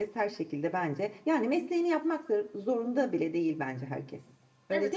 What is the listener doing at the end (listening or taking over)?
taking over